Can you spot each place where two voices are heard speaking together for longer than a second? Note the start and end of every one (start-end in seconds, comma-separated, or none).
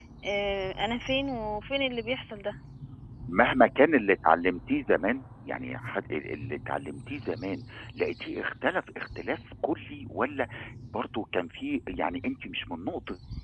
none